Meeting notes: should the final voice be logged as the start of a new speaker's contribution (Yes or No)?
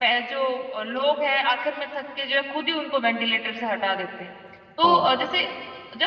No